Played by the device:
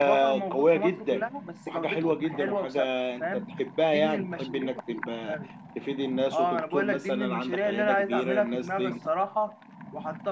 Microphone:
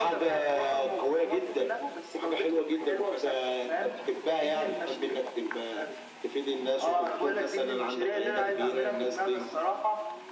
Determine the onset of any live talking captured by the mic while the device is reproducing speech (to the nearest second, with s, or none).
none